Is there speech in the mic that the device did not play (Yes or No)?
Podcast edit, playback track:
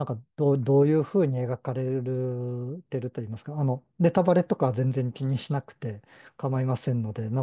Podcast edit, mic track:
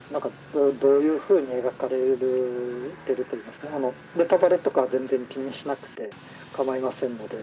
No